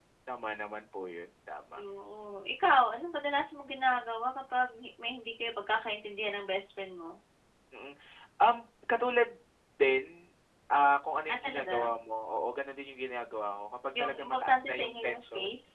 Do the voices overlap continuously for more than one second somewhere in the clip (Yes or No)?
Yes